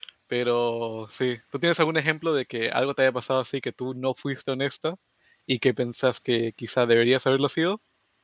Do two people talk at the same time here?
No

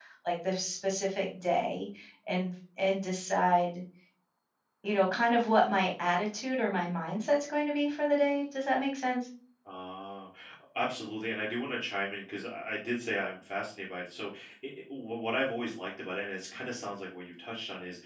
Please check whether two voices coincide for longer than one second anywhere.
No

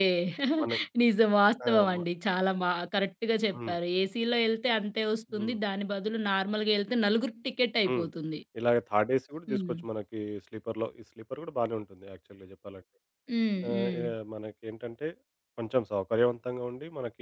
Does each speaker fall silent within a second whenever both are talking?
Yes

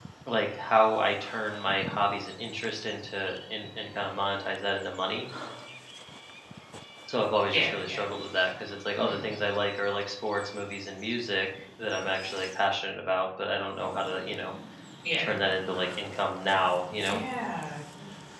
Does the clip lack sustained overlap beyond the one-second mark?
Yes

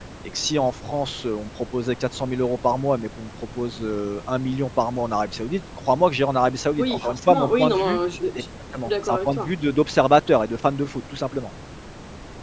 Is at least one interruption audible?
Yes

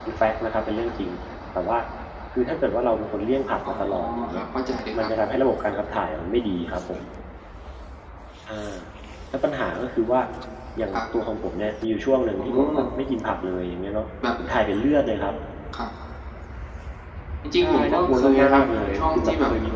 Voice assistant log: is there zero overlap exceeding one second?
No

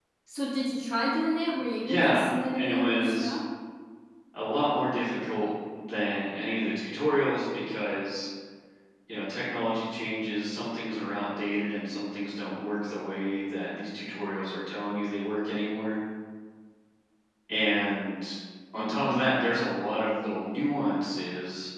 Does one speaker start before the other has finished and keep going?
Yes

